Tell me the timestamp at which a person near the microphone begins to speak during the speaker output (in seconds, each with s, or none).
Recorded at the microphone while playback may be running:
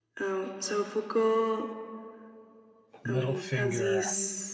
3.0 s